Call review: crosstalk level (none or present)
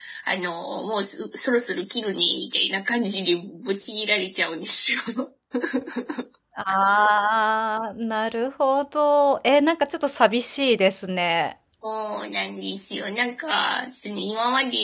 none